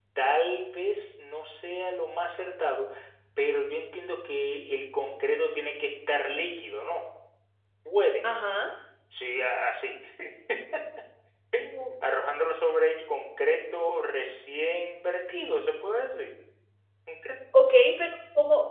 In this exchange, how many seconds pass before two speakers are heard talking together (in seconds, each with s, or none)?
none